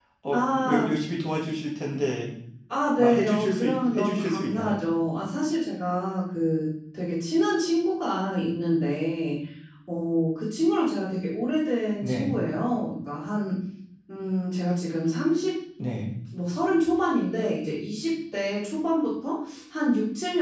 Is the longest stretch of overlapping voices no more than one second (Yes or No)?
No